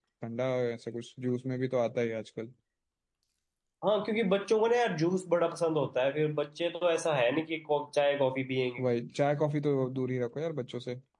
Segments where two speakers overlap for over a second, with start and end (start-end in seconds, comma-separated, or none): none